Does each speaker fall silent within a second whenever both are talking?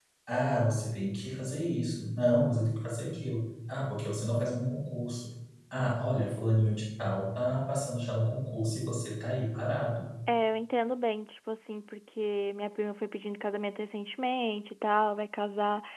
Yes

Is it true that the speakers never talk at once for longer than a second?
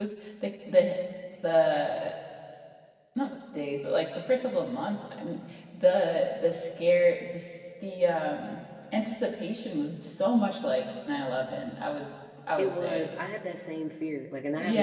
Yes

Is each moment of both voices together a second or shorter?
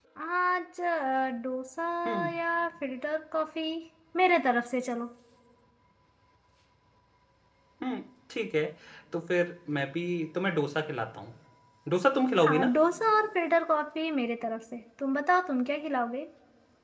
Yes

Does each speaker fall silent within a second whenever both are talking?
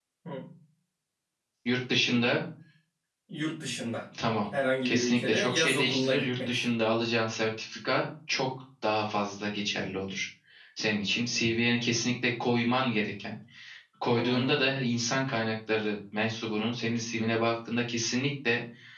No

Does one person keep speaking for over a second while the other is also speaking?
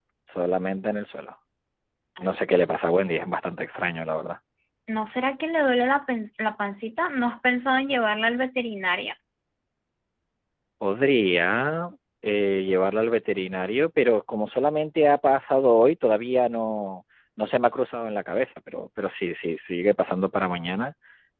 No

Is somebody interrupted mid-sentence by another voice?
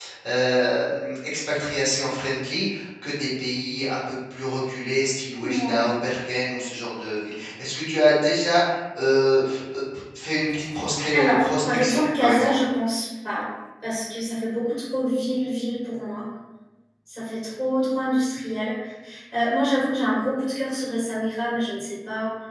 Yes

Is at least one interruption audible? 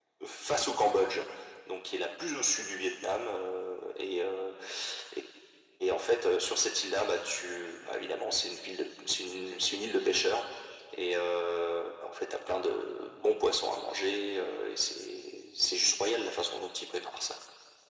No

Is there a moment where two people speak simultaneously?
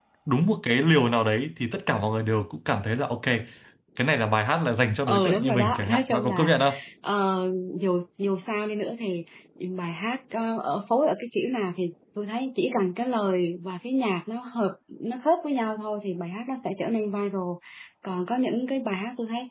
Yes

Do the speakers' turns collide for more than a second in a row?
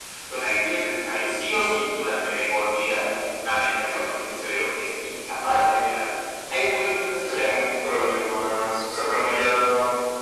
No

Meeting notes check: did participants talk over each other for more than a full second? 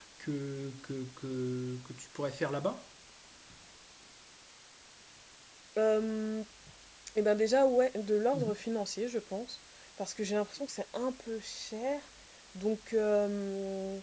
No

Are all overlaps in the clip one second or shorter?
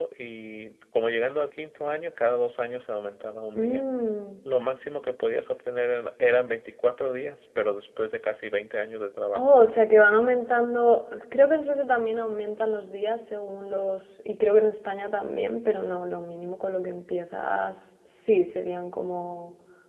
Yes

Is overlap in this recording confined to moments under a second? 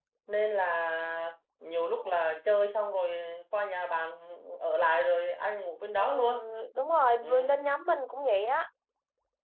Yes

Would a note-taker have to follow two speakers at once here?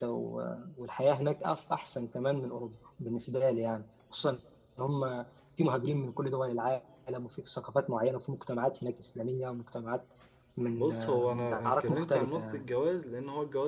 Yes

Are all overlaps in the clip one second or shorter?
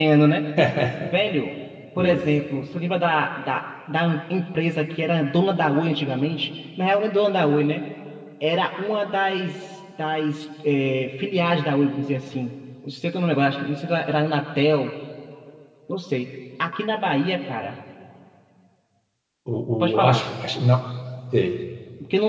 Yes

